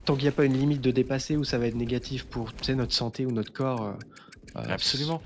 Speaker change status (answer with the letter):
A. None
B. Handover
B